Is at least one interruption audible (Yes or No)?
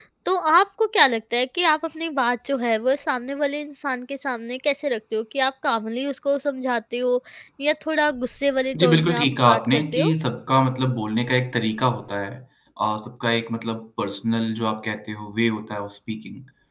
Yes